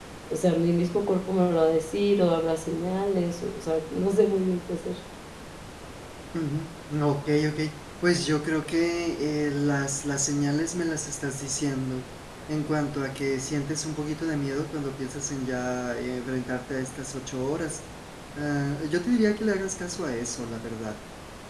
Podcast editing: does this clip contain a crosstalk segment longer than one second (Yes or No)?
No